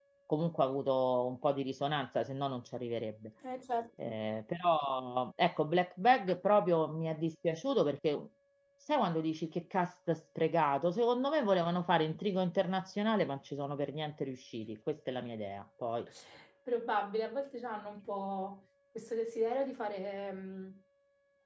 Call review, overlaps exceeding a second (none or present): none